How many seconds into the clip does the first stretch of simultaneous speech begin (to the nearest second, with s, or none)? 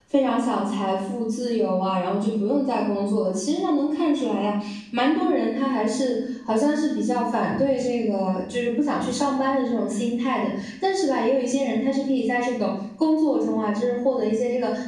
none